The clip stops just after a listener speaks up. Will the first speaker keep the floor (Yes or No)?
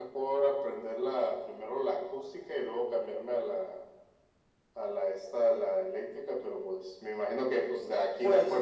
Yes